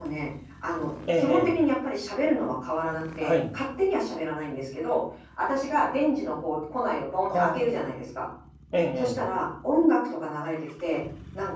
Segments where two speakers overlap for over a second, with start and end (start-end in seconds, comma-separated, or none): none